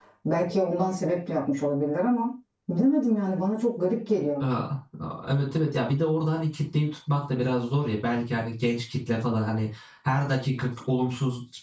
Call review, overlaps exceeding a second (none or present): none